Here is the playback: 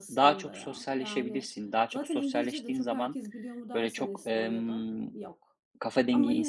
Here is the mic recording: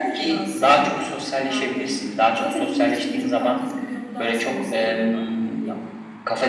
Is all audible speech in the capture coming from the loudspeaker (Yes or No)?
Yes